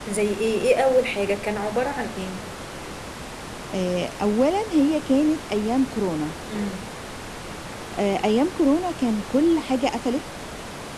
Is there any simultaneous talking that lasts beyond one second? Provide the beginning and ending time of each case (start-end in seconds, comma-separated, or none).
none